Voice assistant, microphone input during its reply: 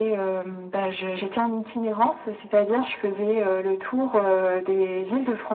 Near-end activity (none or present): none